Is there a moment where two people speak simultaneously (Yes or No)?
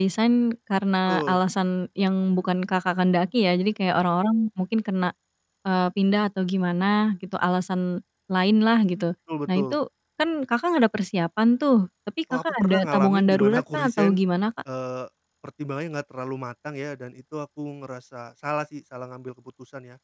Yes